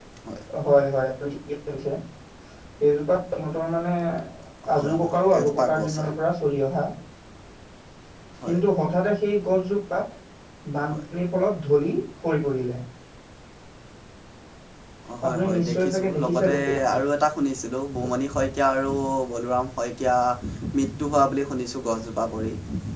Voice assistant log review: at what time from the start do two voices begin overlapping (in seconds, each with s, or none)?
4.8 s